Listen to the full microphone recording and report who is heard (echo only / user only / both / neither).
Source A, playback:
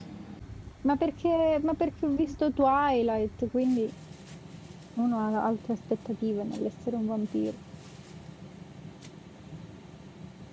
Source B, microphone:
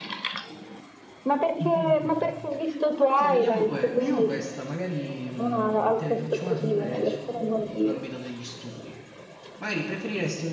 both